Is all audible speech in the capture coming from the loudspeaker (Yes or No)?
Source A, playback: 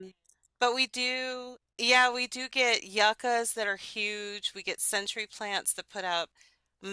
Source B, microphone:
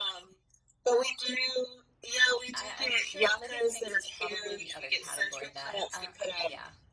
No